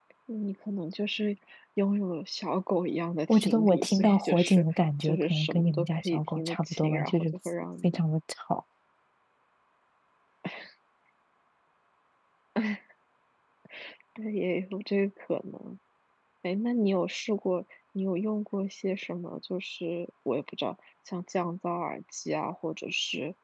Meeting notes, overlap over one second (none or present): present